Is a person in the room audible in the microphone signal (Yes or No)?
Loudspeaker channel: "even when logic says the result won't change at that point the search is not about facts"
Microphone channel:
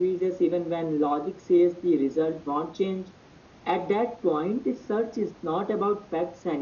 No